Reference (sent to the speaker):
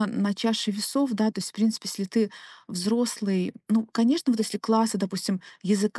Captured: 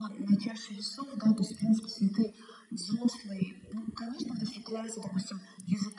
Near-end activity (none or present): none